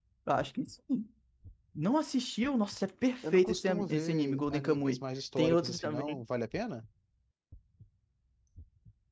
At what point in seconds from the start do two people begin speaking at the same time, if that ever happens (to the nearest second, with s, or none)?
3 s